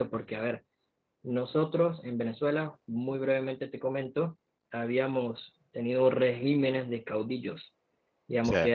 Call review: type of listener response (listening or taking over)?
listening